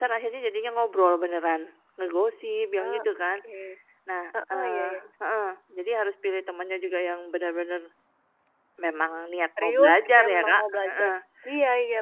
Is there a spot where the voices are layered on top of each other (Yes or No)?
Yes